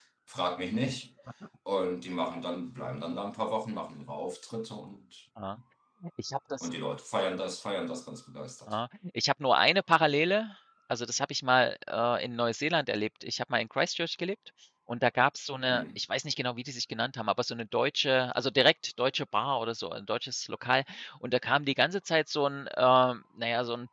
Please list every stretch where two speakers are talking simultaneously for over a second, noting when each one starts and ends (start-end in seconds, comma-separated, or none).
none